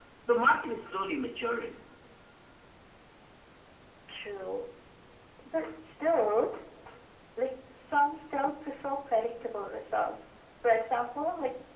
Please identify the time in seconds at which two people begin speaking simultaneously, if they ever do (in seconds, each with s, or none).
none